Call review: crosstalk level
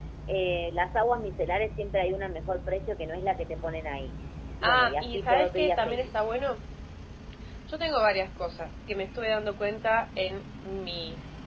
present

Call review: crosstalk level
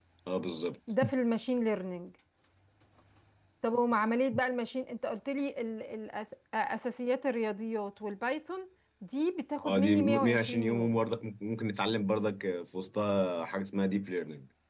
present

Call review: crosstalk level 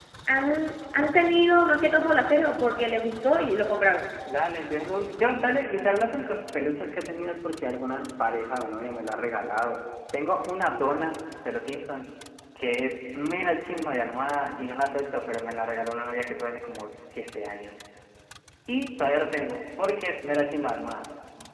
none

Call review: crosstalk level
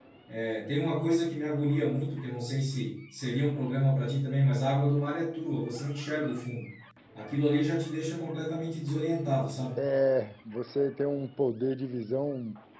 none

